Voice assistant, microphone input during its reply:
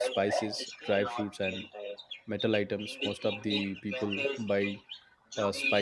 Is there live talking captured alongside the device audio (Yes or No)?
Yes